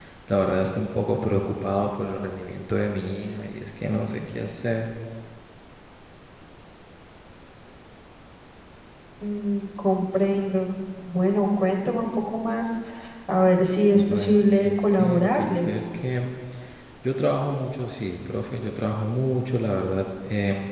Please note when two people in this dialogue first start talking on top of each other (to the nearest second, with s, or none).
14 s